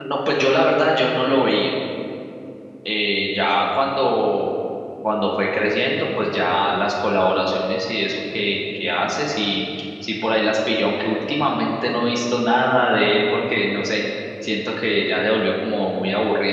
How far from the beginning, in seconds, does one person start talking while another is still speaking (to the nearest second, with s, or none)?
none